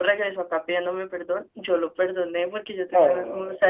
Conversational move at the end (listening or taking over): listening